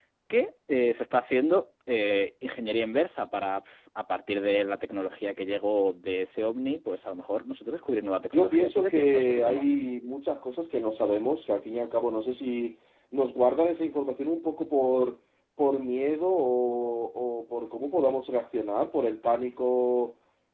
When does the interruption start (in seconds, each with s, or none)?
8.3 s